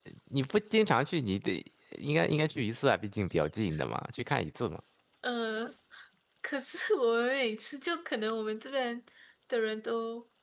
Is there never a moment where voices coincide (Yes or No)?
Yes